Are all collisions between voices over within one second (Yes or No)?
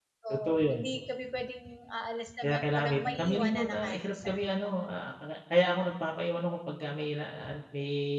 No